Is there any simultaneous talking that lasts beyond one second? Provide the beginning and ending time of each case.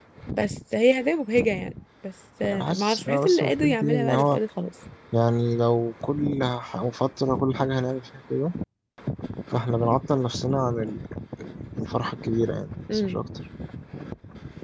2.4-4.4

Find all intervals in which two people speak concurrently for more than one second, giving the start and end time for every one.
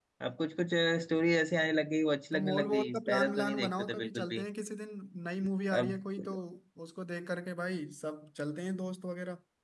2.3-4.4

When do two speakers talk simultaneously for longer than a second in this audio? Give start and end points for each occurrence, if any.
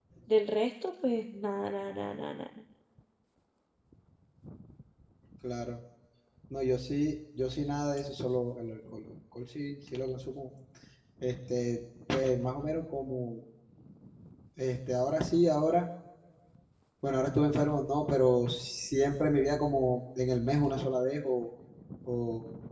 none

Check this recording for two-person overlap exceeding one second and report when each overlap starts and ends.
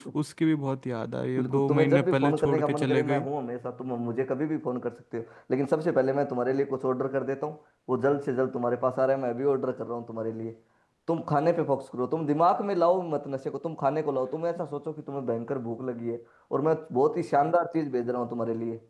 1.4-3.2

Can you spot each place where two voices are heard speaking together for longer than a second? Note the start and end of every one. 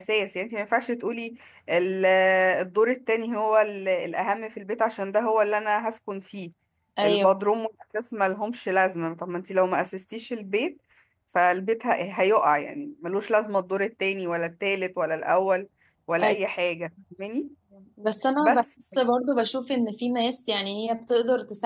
none

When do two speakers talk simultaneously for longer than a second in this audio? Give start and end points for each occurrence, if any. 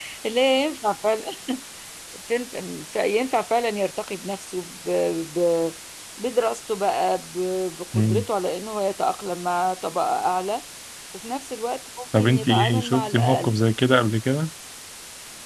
12.2-13.5

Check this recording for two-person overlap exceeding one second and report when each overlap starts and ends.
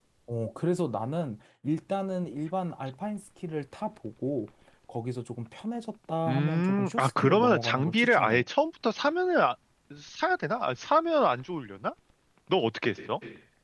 6.3-8.4

